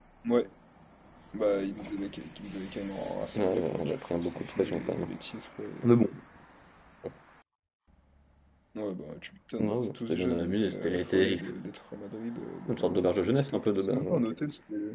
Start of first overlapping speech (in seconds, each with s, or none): 3.3 s